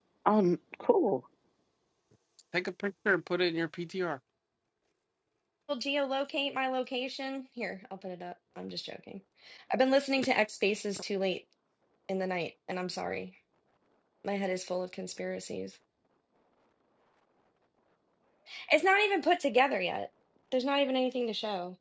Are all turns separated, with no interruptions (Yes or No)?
Yes